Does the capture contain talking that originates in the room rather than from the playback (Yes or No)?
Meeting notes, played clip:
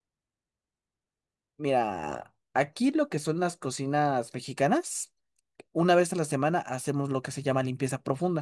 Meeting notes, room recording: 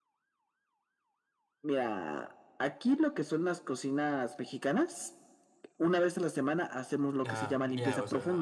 Yes